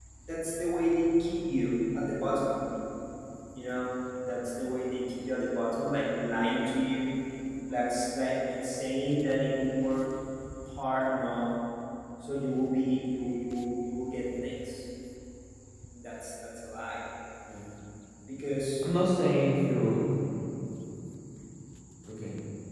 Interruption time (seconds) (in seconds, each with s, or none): none